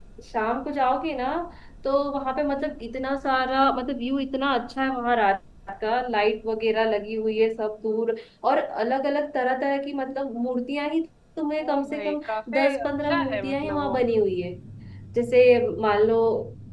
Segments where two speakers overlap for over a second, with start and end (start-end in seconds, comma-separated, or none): 11.7-13.9